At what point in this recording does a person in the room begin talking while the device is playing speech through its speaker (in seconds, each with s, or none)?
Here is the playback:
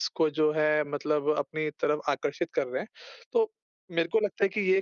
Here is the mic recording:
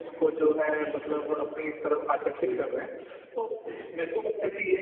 2.3 s